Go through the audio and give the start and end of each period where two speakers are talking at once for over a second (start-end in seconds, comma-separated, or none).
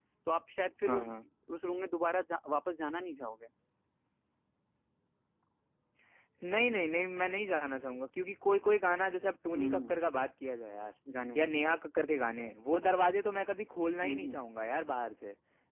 none